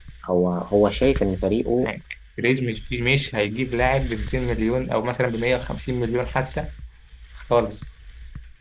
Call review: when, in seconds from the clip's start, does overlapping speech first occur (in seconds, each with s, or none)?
none